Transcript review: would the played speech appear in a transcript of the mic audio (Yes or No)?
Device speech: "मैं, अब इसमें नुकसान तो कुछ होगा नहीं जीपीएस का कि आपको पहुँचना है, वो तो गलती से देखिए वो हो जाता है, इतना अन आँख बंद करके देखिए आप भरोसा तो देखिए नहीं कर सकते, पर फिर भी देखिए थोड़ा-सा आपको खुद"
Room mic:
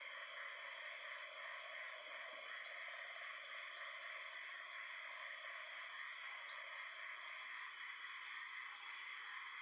No